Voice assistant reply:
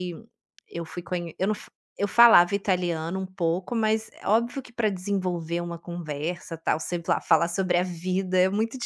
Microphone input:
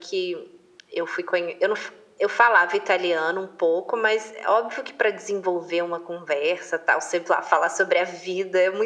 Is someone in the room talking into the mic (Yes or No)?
No